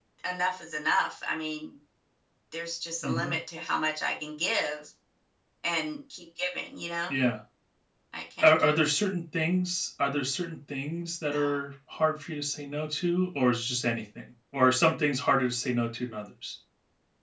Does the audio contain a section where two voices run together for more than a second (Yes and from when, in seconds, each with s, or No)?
No